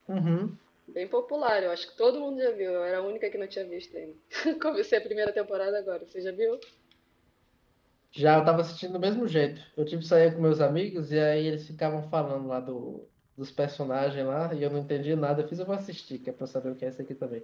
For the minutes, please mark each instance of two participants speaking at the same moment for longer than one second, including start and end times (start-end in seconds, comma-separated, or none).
none